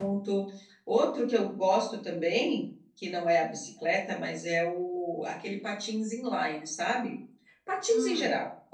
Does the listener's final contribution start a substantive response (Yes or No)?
No